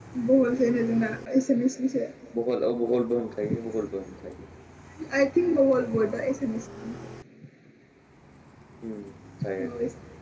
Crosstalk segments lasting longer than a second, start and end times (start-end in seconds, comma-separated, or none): none